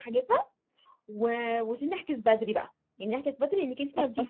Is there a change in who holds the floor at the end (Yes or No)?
No